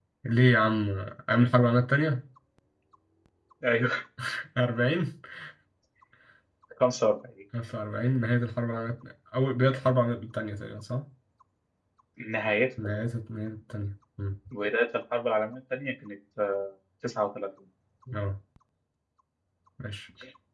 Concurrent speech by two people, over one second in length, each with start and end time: none

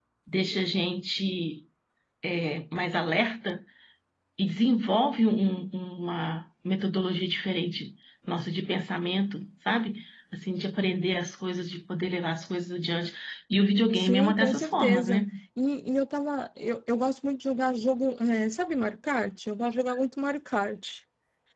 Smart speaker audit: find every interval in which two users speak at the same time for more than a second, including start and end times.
14.0-15.3

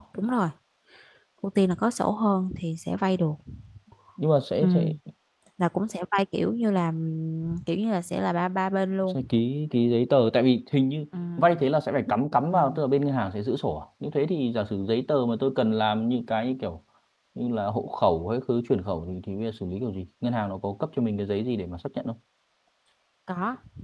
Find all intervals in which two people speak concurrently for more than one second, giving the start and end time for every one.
none

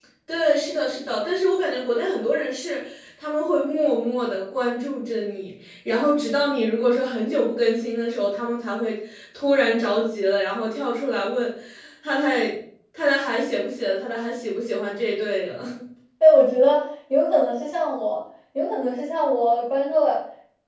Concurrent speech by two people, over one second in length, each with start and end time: none

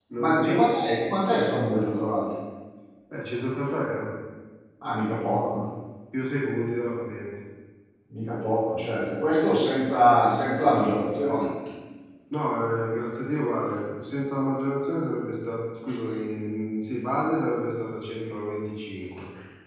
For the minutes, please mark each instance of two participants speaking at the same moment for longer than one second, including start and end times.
none

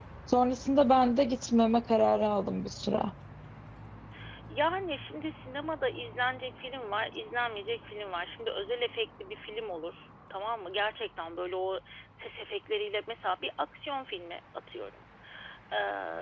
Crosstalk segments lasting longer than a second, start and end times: none

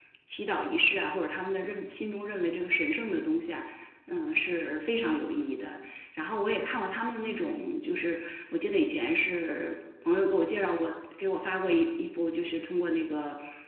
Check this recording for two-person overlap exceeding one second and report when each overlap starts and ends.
none

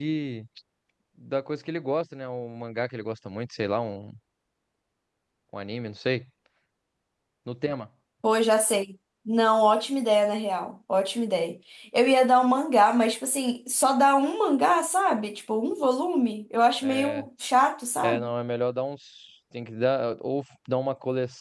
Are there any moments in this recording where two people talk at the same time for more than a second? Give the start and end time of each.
none

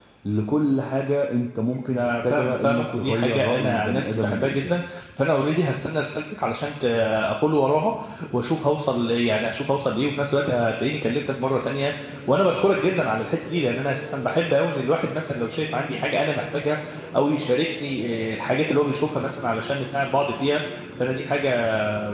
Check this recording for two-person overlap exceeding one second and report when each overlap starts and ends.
1.9-4.8

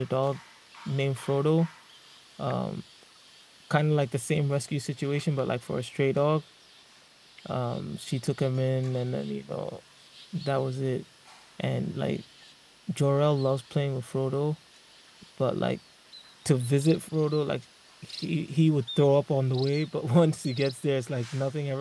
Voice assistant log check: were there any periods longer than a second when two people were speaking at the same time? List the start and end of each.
none

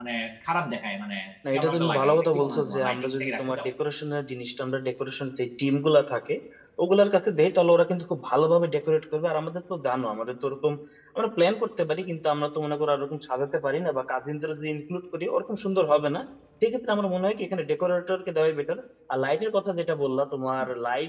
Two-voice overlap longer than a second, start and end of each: 1.5-3.7

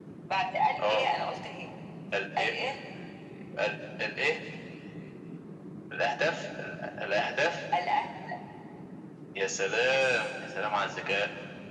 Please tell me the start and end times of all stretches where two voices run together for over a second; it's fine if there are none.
none

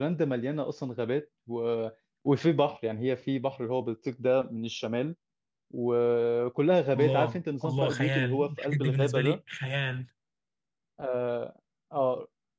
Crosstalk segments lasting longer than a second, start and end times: 7.0-9.4

